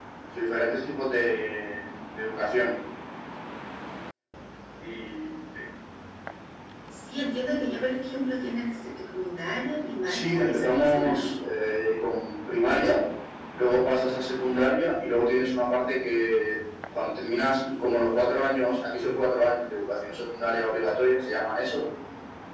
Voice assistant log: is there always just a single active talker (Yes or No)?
No